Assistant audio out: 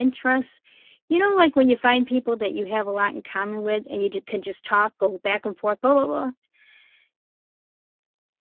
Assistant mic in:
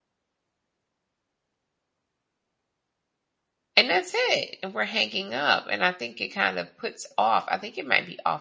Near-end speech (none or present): present